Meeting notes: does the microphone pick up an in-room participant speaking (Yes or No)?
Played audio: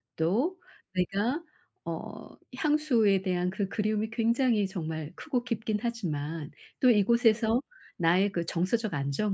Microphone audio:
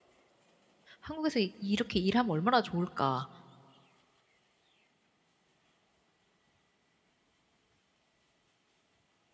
Yes